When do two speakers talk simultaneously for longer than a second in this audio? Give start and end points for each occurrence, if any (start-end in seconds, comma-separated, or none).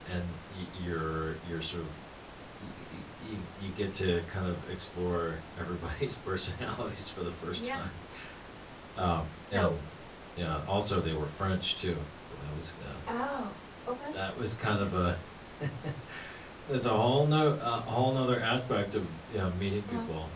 none